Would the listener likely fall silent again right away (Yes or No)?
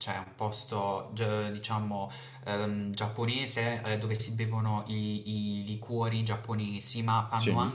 Yes